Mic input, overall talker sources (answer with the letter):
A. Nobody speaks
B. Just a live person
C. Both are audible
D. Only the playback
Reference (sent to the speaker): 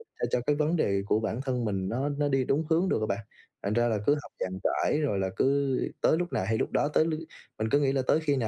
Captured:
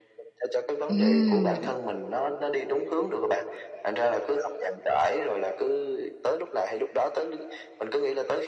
C